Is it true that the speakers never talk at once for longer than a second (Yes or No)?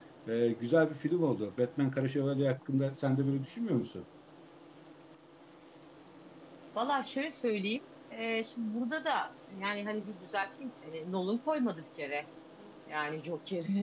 Yes